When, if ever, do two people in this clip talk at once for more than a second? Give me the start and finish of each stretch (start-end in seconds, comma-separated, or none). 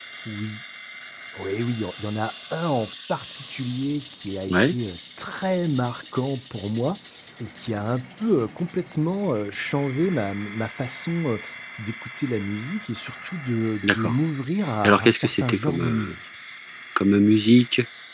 14.8-16.1